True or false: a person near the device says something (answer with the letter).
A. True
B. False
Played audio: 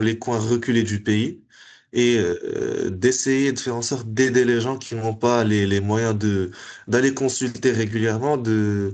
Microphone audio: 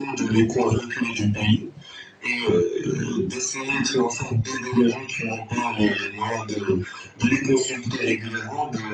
B